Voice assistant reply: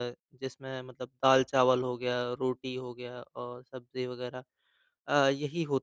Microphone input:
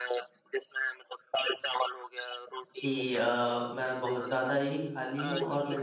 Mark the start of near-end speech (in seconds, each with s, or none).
2.8 s